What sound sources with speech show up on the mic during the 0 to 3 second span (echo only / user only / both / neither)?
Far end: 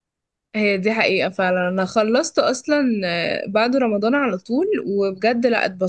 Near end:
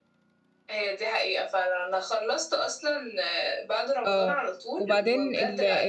echo only